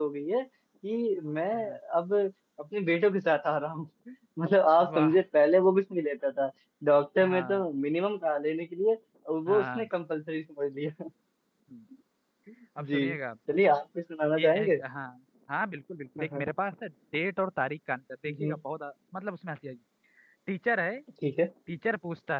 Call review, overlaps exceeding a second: none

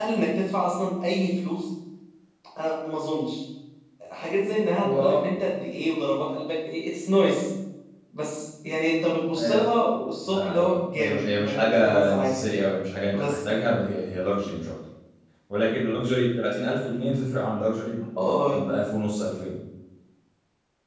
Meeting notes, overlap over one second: present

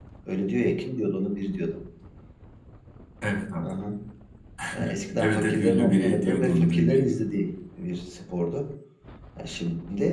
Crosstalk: present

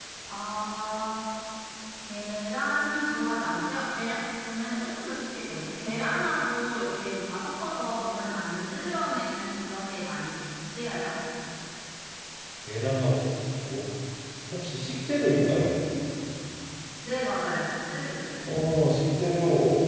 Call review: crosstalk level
none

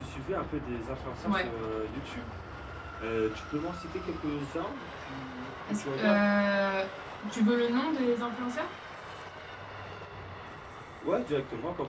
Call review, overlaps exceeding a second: none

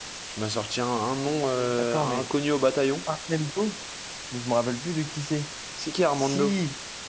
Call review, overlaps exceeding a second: none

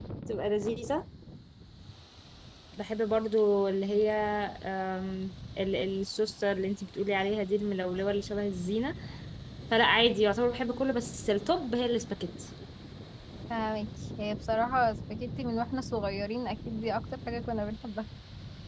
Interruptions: none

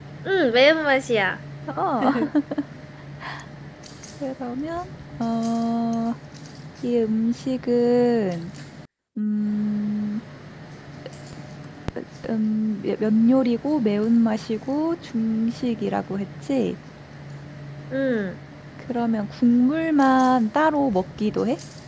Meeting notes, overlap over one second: none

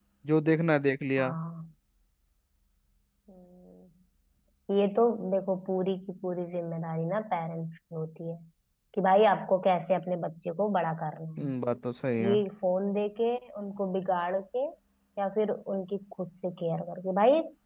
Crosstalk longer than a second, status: none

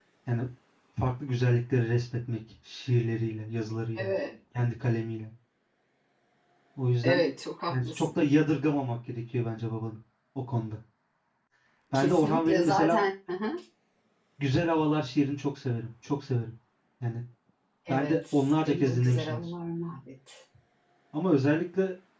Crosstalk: present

